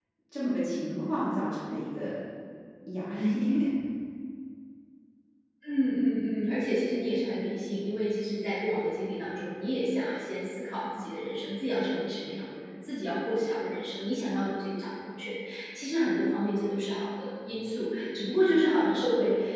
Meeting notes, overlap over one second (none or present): none